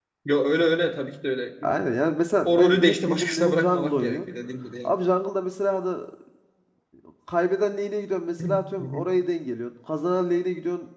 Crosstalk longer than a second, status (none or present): present